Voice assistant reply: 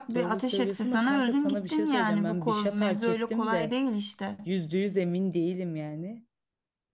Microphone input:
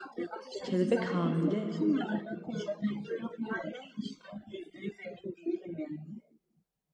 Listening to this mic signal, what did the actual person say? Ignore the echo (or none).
Kelebek hamile.